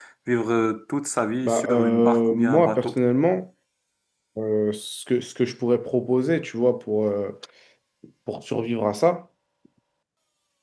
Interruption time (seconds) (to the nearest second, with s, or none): 1 s